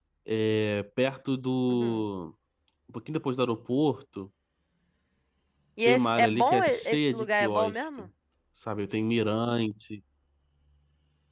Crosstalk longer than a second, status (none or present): present